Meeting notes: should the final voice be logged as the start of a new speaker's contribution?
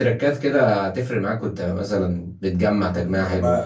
Yes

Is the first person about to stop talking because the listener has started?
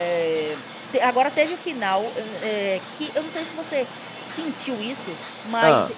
No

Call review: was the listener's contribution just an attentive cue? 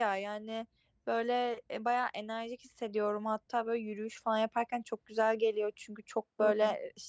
Yes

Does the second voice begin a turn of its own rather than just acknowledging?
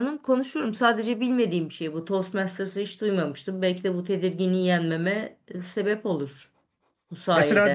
Yes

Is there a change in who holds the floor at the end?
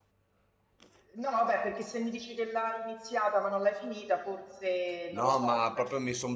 Yes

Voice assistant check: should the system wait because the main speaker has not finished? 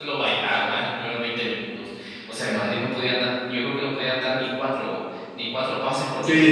No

